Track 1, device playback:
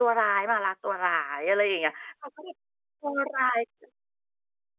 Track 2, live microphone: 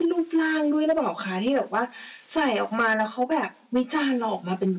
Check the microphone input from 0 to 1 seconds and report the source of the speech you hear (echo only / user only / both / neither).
user only